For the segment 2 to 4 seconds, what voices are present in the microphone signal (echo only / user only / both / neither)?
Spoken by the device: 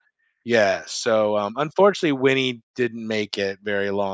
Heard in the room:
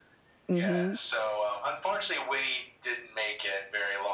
echo only